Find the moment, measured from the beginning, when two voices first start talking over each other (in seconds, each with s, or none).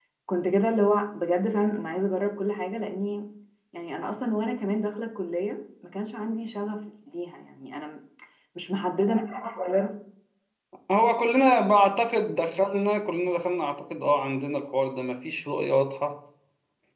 none